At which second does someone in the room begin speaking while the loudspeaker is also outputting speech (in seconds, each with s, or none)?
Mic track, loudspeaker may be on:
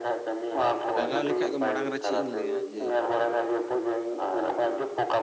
1.0 s